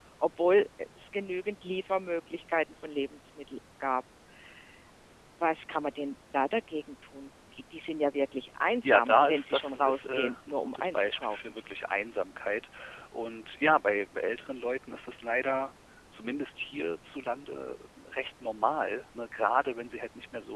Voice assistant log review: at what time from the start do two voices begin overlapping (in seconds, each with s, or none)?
8.8 s